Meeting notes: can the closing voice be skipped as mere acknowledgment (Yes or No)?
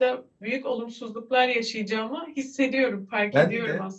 No